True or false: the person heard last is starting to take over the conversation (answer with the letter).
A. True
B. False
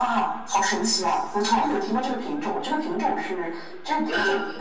B